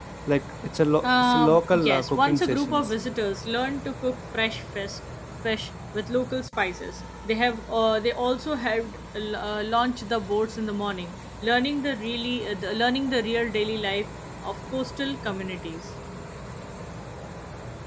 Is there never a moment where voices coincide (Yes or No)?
No